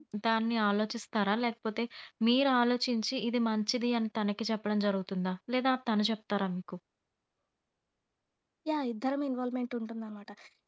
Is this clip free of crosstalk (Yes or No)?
Yes